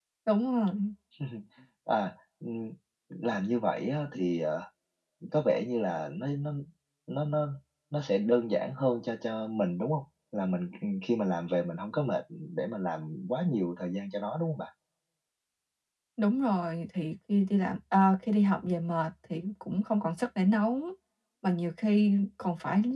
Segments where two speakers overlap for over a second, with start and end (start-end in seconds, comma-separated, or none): none